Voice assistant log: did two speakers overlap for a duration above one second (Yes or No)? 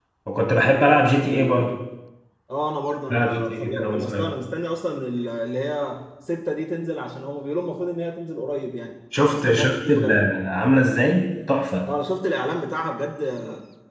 Yes